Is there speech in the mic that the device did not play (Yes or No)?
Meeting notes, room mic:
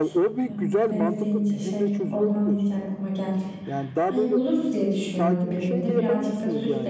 Yes